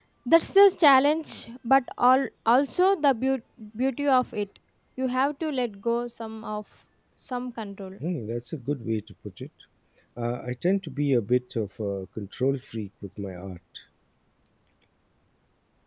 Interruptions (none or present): none